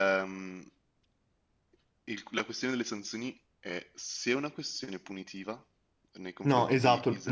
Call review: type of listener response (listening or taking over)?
taking over